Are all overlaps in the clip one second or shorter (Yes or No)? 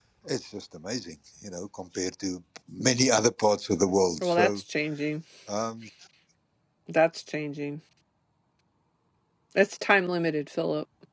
Yes